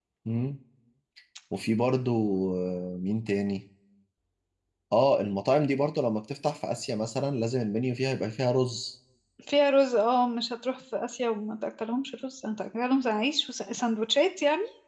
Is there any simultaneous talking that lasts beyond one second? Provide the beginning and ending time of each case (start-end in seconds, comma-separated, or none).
none